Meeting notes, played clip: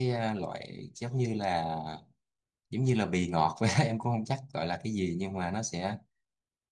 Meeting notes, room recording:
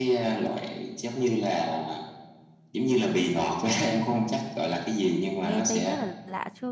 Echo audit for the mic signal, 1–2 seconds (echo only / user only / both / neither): echo only